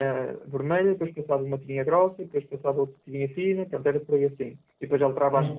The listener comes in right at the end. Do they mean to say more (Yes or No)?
No